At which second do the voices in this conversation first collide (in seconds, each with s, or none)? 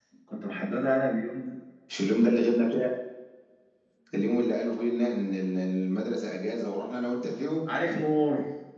none